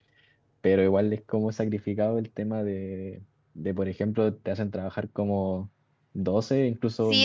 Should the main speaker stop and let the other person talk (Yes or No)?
Yes